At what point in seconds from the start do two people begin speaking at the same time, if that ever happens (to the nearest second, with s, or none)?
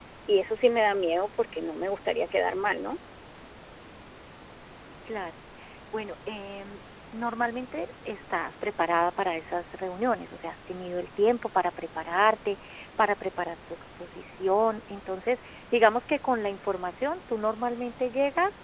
none